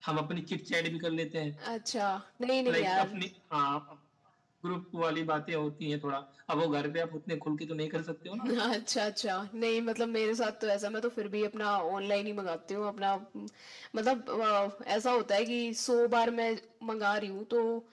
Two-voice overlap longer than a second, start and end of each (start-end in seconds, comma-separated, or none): none